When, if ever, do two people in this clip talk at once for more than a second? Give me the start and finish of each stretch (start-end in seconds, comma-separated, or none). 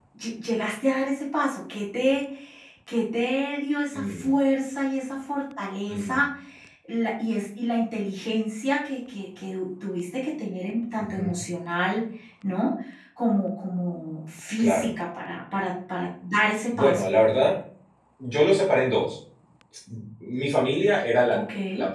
none